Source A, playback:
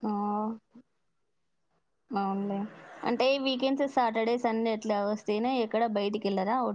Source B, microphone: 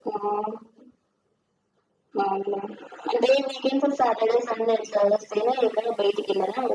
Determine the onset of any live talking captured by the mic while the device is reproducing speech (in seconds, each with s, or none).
none